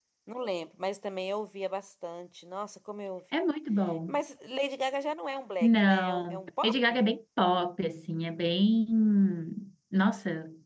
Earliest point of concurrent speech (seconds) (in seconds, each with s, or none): 5.6 s